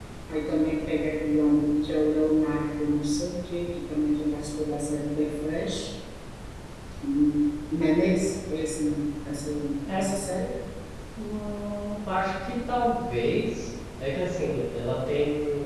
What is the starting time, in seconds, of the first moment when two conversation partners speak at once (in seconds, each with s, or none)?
none